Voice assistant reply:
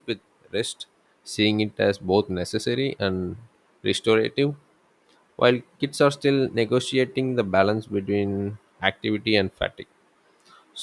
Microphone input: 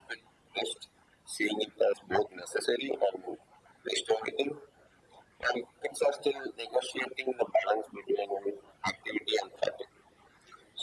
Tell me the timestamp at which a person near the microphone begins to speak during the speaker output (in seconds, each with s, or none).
none